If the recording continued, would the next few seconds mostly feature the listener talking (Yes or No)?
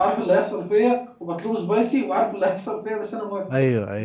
Yes